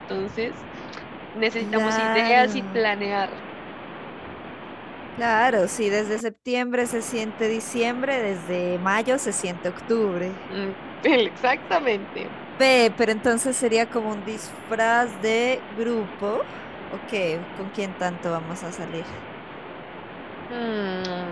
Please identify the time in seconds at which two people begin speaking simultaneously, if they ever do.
1.6 s

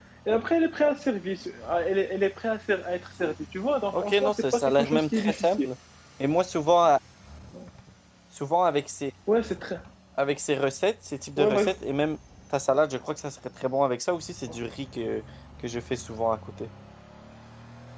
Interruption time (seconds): 3.9 s

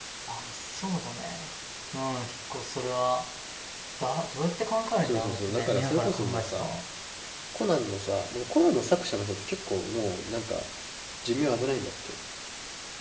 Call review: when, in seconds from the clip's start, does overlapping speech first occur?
5.0 s

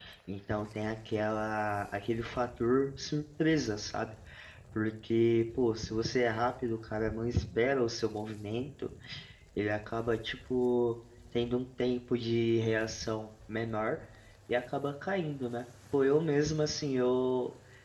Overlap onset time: none

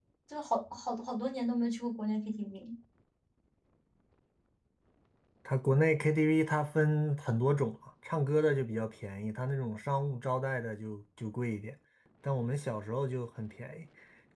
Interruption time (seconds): none

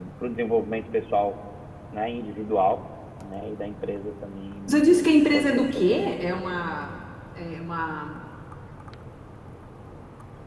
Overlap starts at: 4.7 s

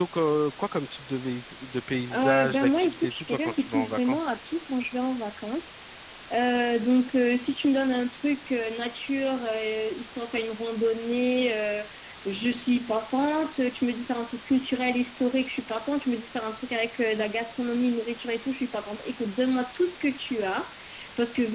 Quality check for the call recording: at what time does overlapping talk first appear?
2.1 s

